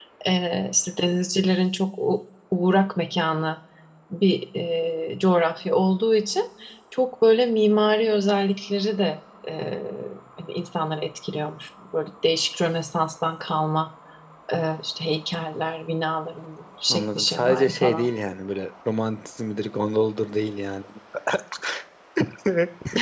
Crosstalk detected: Yes, from 16.9 s

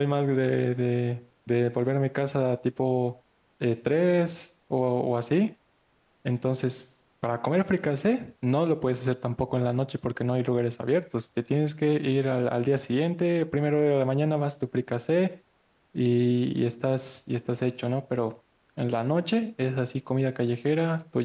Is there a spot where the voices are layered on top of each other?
No

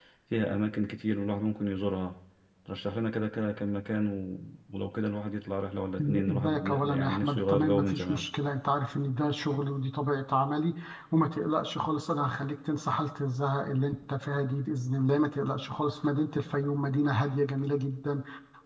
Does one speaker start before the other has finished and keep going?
Yes, from 6.3 s

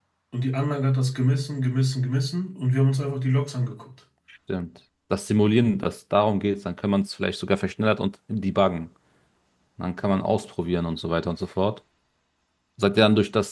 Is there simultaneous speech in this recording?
No

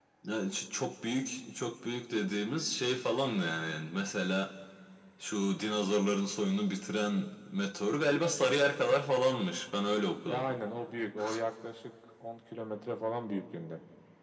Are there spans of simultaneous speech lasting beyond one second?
No

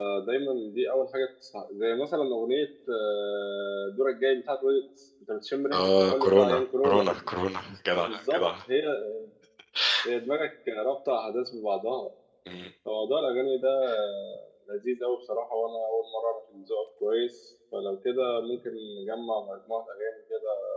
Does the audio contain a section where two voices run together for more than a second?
Yes, from 5.7 s

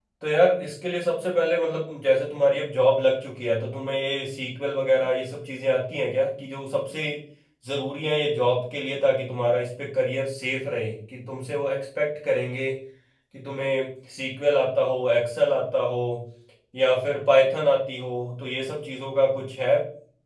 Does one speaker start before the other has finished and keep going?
No

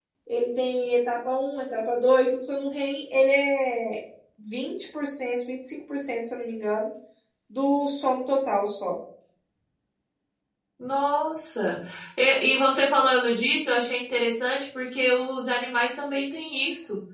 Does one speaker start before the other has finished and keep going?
No

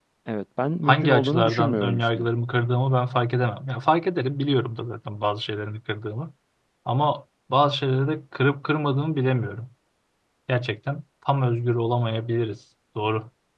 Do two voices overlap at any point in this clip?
Yes, from 0.8 s

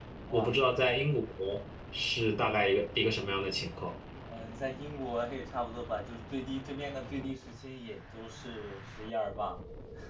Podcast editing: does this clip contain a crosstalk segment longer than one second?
No

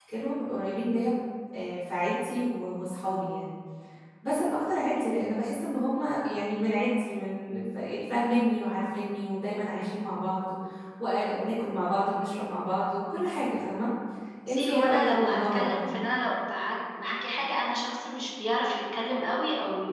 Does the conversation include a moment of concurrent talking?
Yes, from 14.5 s

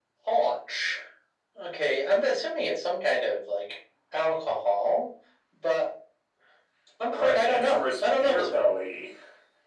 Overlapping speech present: Yes, from 7.1 s

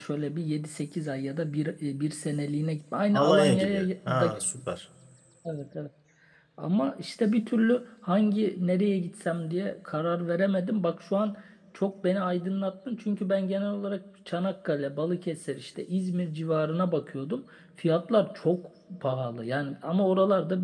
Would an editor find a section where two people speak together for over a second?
Yes, from 3.1 s

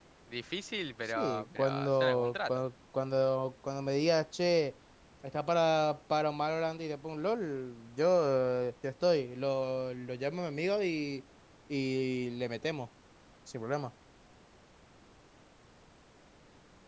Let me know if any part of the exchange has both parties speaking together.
Yes, from 1.0 s

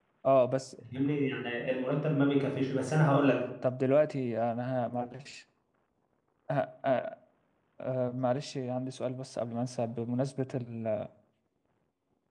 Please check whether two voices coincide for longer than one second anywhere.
No

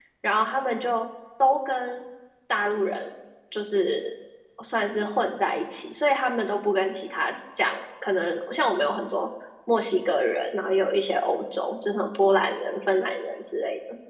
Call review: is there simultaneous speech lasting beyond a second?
No

